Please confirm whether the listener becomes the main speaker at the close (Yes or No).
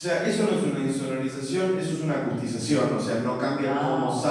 No